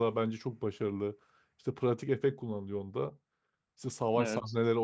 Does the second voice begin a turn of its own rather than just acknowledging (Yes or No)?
No